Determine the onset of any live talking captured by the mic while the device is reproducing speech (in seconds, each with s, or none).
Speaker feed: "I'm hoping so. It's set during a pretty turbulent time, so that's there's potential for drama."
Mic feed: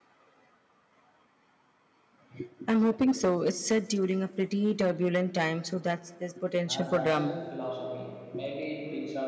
6.7 s